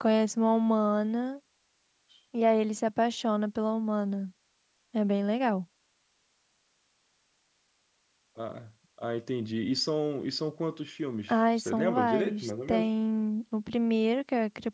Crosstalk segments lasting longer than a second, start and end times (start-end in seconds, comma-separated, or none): 11.3-12.9